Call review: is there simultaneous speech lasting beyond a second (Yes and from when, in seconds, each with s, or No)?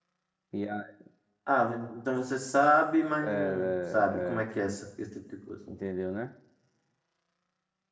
Yes, from 3.2 s